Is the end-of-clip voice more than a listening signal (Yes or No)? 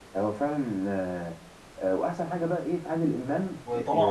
Yes